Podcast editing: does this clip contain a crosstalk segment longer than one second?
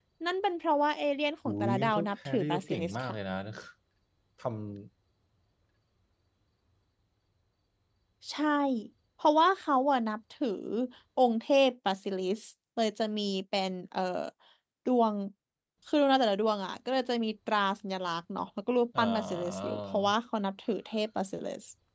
Yes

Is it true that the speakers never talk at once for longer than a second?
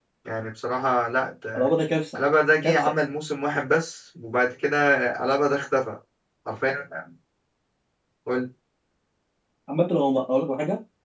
Yes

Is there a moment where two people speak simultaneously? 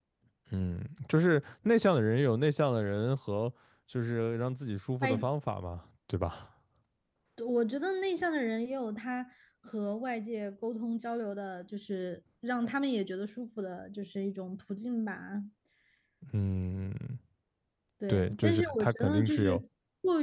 Yes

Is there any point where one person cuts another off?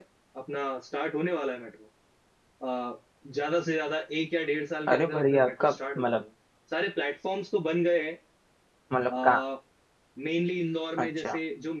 Yes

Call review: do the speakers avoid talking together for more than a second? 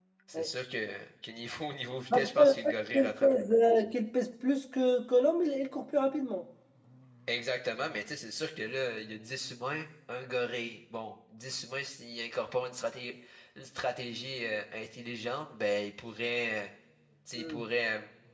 No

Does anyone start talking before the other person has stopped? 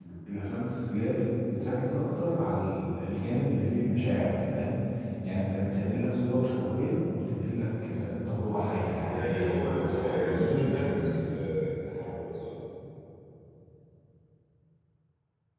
Yes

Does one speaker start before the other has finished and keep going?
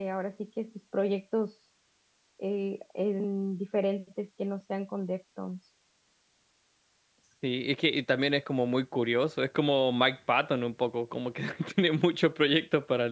No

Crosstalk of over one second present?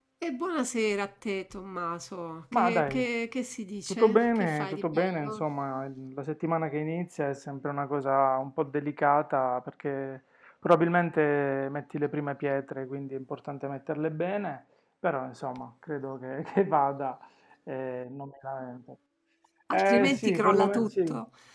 Yes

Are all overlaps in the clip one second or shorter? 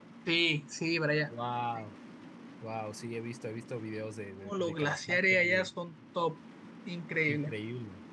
No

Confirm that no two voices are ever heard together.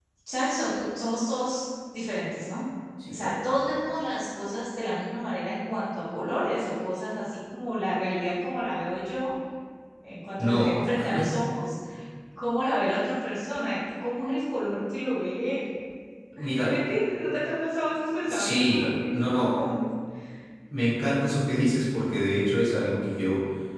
No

